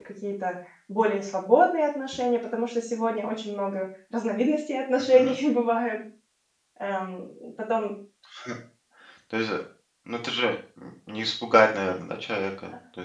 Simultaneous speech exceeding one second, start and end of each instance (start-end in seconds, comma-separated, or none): none